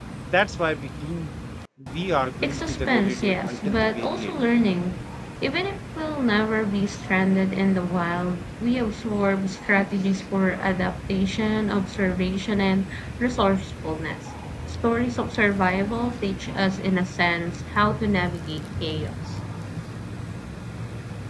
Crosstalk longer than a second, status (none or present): present